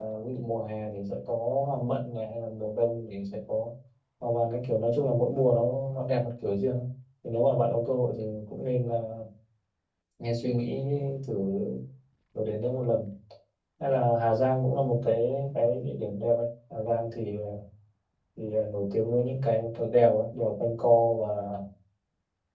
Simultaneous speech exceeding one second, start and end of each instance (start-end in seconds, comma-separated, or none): none